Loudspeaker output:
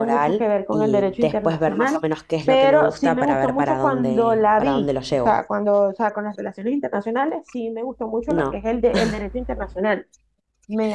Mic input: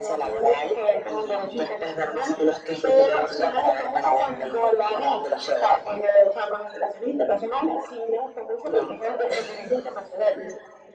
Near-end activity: none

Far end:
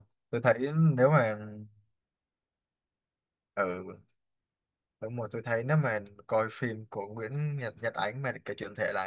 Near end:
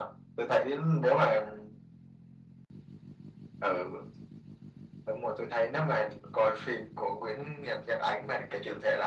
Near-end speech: none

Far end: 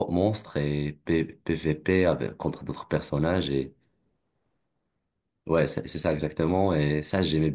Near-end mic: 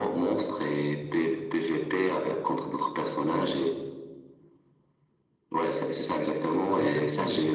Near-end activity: present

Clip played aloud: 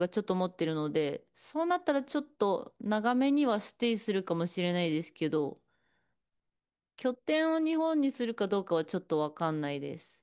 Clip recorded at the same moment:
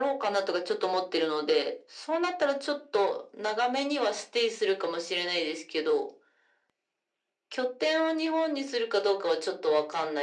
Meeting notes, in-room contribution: none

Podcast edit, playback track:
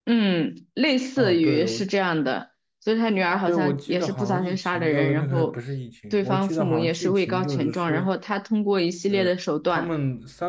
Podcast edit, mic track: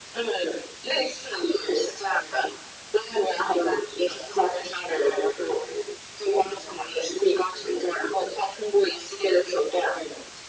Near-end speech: none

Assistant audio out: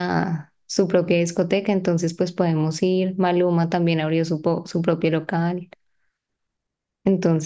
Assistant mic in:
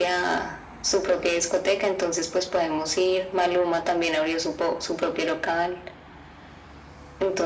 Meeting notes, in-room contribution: none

